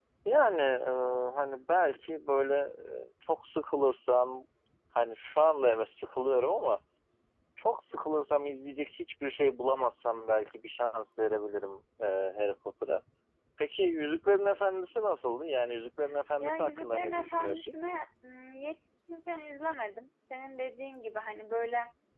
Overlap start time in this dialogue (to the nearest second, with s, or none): 16 s